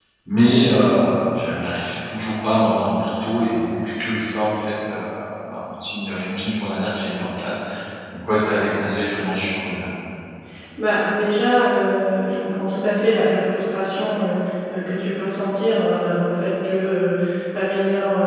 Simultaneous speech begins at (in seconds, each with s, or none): none